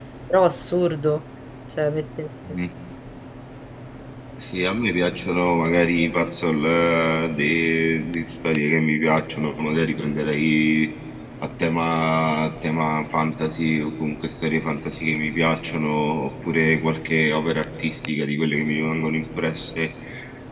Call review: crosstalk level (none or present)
none